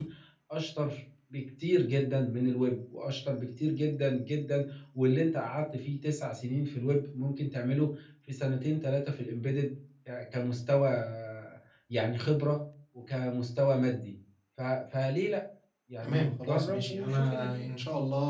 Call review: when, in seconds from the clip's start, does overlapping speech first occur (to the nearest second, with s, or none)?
16 s